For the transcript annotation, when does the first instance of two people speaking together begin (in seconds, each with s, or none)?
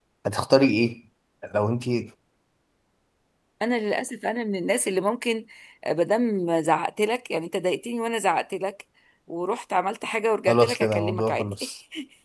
10.5 s